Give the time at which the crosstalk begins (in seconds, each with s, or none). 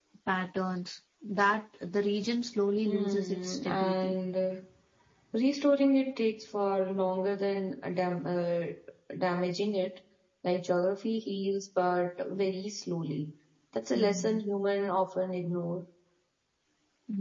2.8 s